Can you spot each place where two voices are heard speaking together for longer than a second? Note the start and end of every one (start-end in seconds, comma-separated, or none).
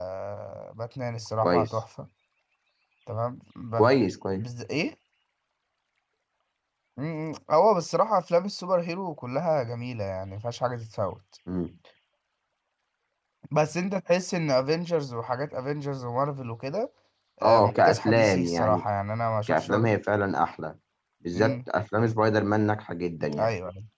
17.4-18.8